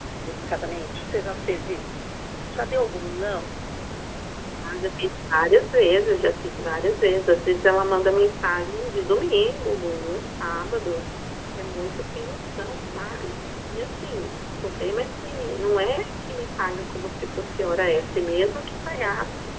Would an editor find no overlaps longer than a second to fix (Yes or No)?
Yes